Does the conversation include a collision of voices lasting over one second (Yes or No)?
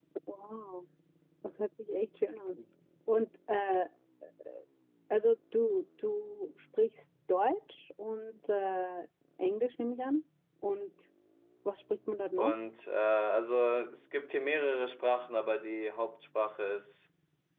No